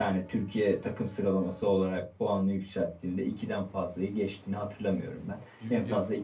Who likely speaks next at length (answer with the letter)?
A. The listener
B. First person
B